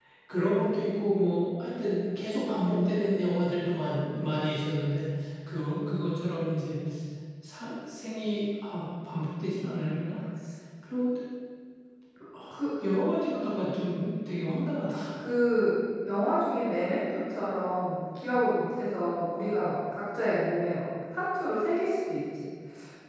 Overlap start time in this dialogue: none

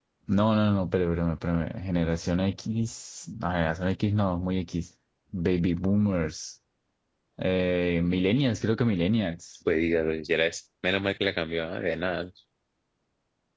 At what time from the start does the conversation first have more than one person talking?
none

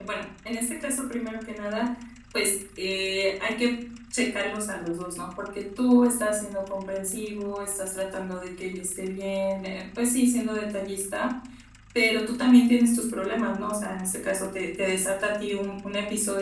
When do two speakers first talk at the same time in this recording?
none

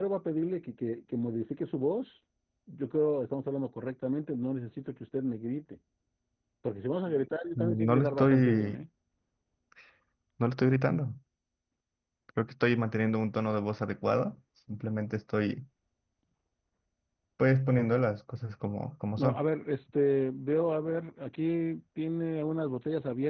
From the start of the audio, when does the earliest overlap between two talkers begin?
7.6 s

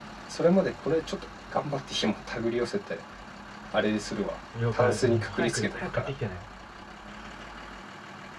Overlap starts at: 4.5 s

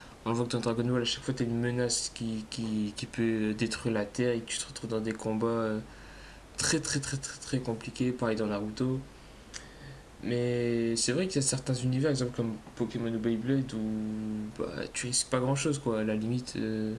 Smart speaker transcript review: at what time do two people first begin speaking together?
none

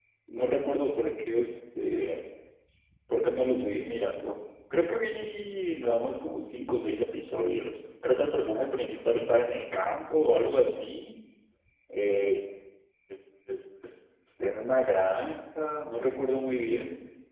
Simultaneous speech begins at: none

